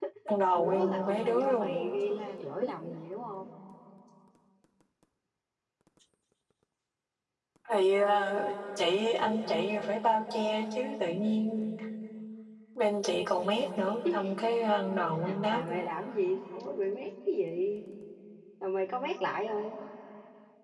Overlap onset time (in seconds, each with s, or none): 0.5 s